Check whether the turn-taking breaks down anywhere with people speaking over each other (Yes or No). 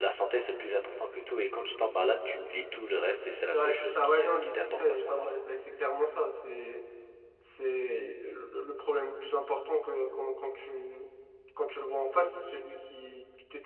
Yes